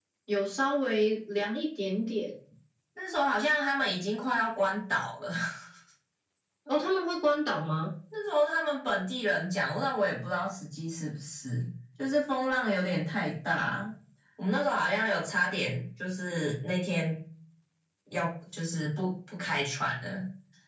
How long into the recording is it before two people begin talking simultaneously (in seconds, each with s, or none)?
none